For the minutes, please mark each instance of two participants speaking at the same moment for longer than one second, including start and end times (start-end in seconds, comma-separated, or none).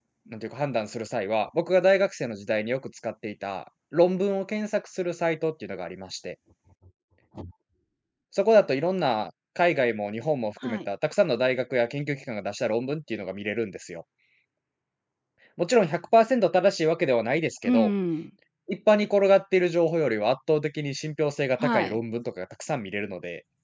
none